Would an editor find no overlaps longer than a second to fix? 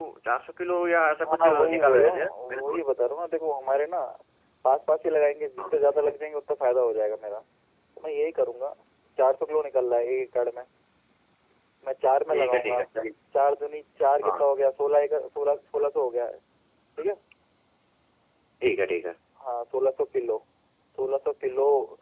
No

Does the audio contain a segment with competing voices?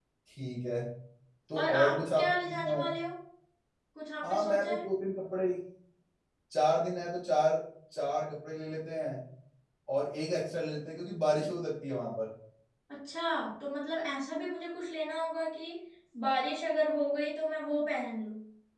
Yes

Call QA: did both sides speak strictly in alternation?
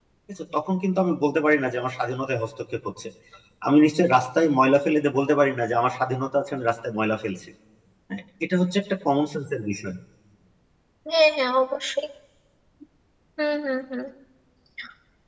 Yes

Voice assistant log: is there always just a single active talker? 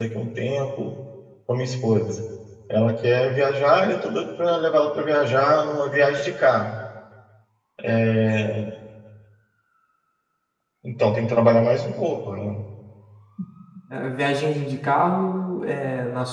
Yes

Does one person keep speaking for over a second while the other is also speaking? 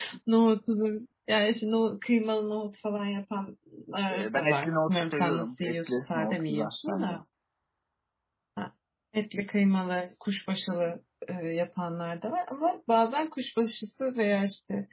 Yes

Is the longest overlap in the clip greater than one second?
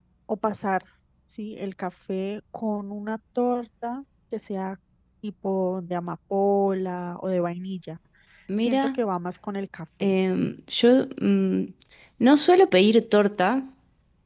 No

